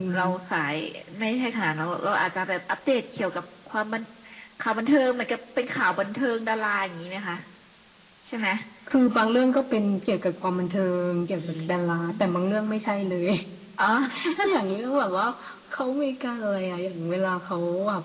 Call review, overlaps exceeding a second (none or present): none